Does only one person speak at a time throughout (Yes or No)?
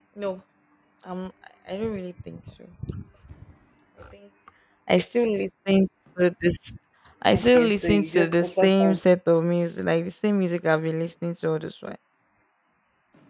No